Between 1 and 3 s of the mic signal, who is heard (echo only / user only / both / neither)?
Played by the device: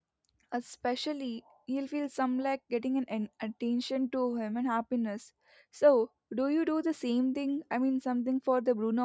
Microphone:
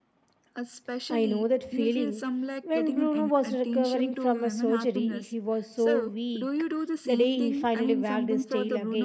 both